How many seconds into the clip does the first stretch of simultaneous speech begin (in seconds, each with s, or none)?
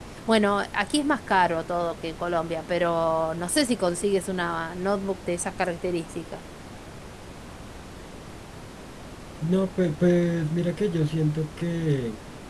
none